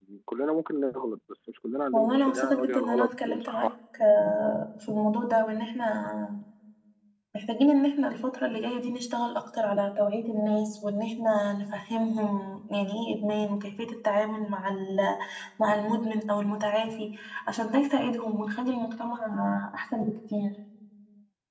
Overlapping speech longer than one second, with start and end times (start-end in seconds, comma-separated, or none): 1.9-3.7